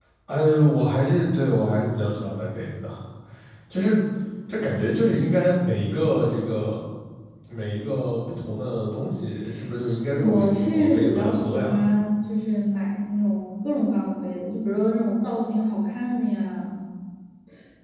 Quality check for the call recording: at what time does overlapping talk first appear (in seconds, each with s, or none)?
10.1 s